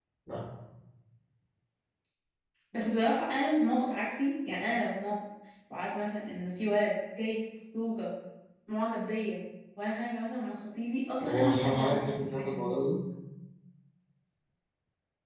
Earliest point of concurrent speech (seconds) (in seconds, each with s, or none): 11.2 s